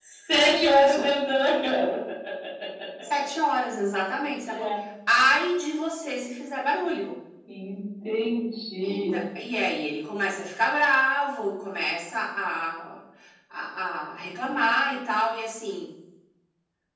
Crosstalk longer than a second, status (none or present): none